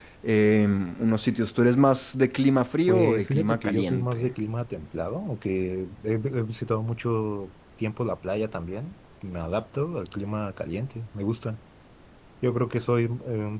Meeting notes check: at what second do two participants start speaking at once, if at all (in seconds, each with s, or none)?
2.9 s